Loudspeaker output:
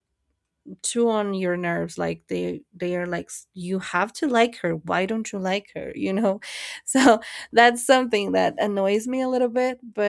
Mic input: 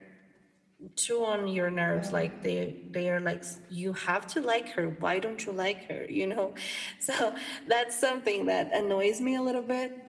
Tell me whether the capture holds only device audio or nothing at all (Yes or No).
No